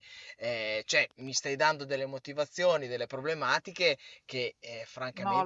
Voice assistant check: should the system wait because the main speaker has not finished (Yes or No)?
No